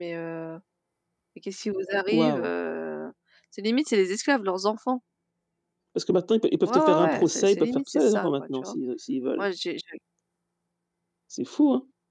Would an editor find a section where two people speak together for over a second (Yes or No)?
Yes